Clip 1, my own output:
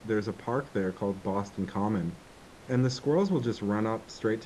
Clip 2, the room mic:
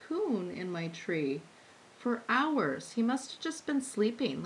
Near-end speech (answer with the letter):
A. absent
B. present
B